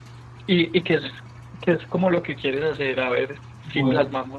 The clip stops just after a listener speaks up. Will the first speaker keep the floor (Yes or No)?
Yes